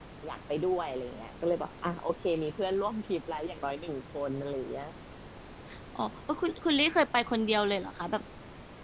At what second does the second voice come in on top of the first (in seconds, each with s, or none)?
none